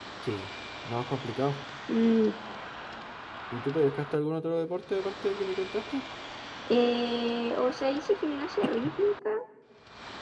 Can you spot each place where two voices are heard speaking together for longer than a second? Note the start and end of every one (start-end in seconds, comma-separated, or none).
none